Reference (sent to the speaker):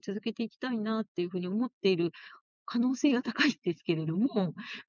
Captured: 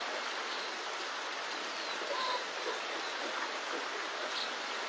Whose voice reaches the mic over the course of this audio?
neither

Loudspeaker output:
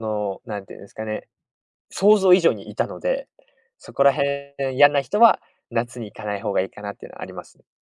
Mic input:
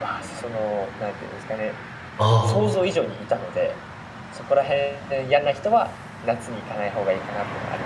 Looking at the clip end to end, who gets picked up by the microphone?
both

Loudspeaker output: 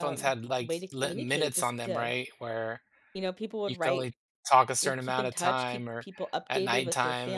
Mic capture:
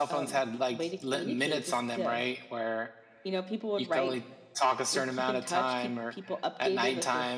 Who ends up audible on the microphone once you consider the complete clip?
echo only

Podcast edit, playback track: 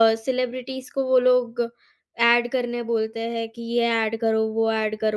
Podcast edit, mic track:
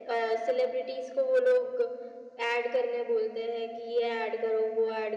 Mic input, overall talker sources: echo only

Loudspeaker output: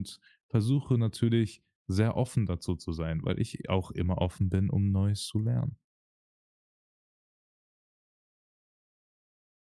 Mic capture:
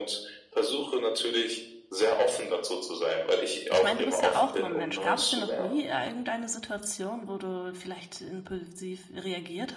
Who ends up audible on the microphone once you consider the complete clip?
both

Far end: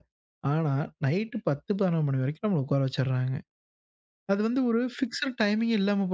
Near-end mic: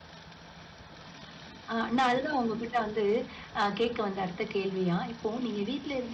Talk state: user only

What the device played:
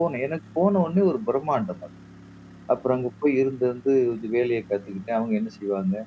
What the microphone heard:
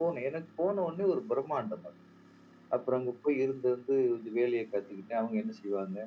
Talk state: echo only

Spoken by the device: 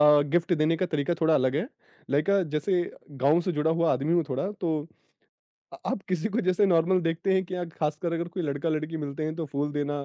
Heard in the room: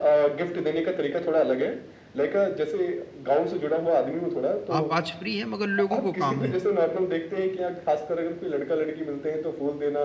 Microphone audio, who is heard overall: both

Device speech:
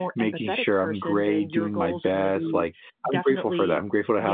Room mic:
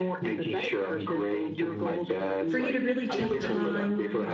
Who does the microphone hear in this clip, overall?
both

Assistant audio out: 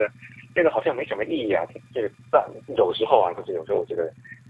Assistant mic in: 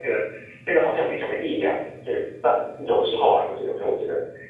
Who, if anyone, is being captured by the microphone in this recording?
echo only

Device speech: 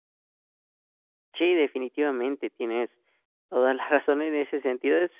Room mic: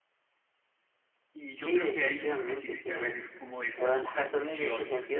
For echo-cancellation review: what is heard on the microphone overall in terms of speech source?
both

